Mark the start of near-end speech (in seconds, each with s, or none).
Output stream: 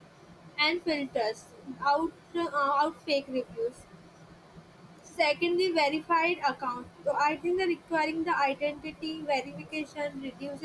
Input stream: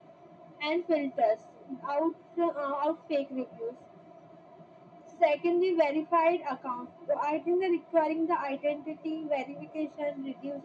none